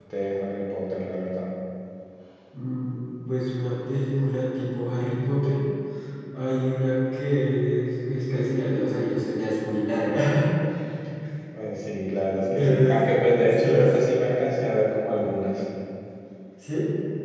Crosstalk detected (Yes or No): Yes